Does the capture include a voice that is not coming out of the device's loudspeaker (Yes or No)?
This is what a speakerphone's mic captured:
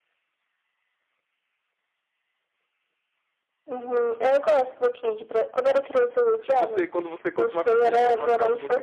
Yes